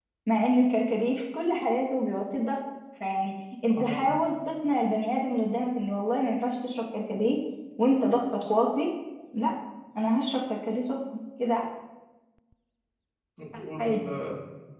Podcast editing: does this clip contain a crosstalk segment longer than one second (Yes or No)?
No